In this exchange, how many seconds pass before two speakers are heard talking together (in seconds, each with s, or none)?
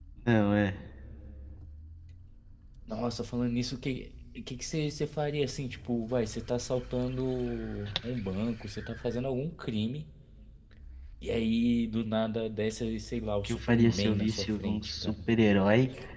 13.4 s